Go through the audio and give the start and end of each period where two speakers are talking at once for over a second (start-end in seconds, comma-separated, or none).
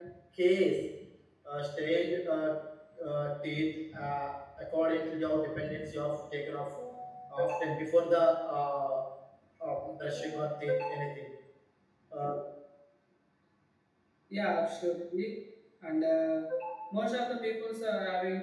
none